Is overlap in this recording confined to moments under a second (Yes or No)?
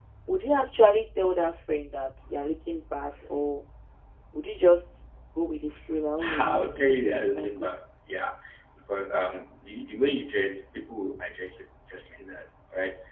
No